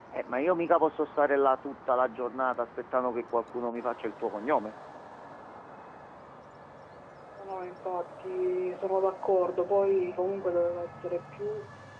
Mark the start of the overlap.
none

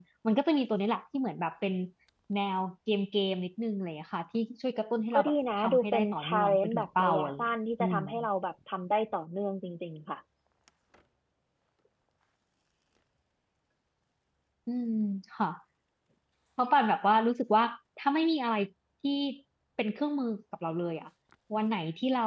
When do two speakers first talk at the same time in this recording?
5.1 s

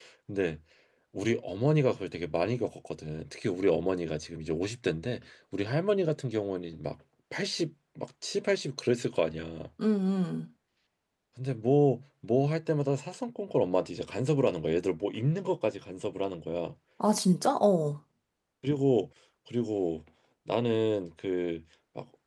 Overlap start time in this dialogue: none

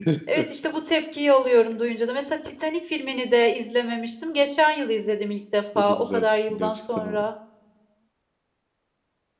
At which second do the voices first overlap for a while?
5.8 s

